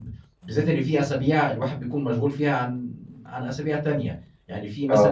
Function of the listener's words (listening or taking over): listening